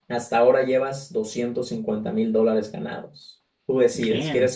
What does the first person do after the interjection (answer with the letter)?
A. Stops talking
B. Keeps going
B